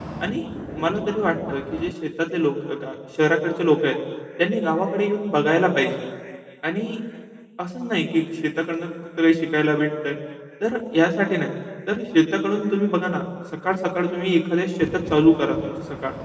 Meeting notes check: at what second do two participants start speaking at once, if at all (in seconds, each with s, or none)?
none